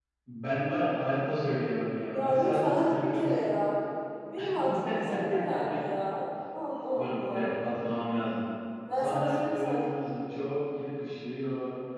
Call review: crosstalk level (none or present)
present